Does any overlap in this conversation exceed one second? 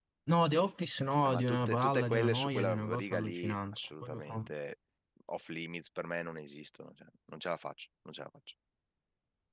Yes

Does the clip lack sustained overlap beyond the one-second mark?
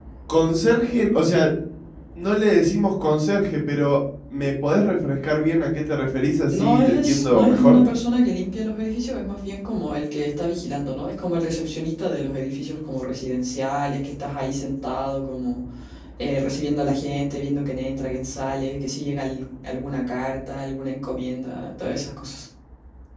No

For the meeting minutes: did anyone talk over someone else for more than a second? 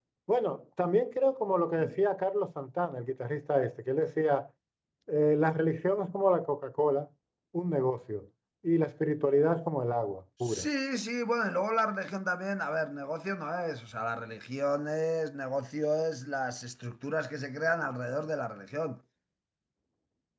No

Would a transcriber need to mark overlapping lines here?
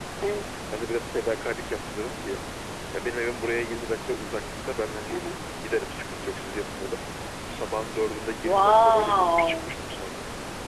Yes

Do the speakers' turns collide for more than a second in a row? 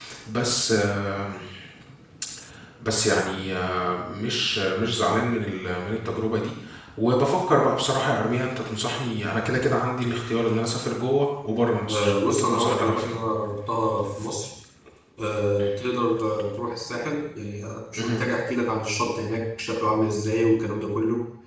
Yes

